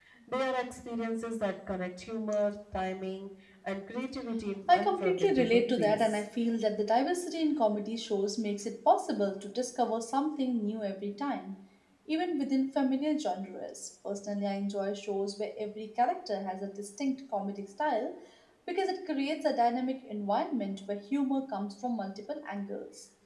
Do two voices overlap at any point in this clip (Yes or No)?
Yes